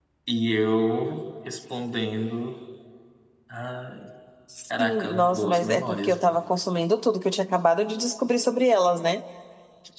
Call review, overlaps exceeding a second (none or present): present